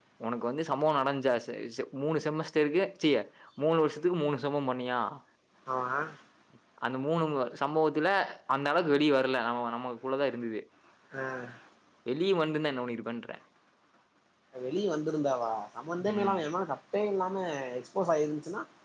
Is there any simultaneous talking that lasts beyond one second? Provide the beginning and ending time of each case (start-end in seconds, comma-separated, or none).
none